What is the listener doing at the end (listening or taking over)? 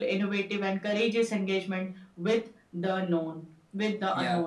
taking over